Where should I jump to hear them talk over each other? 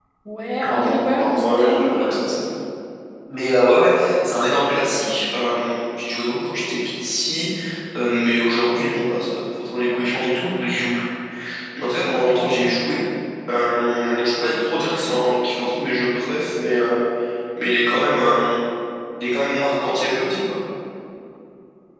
1 s

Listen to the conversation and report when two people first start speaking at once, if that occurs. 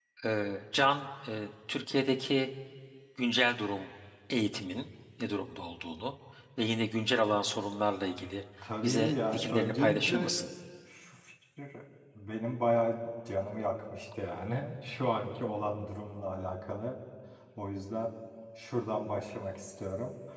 9 s

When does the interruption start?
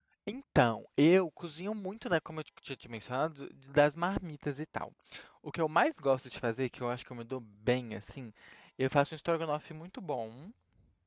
none

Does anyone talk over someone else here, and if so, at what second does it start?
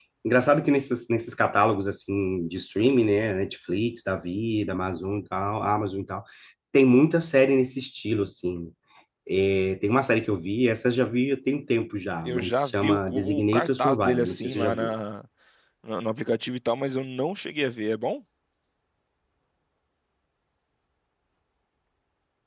12 s

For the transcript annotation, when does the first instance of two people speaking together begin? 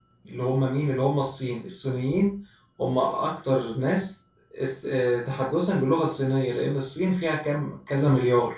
none

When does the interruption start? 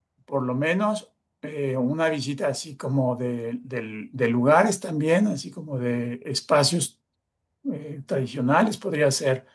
none

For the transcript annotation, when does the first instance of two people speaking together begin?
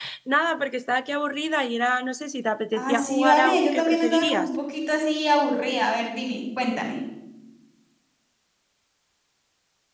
3 s

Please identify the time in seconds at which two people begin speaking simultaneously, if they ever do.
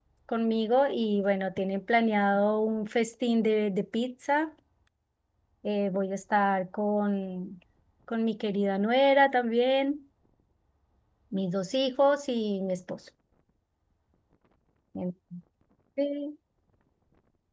none

